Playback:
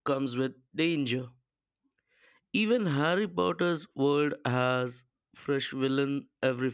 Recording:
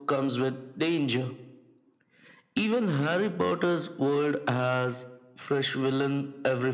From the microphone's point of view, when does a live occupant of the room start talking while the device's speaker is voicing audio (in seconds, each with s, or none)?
none